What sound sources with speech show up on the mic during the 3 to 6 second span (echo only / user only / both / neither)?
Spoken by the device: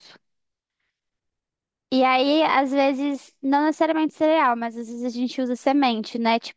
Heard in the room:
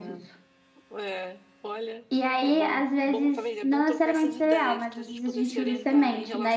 both